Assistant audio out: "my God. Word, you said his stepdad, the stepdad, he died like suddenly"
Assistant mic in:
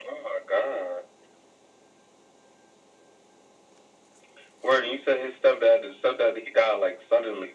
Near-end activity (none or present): none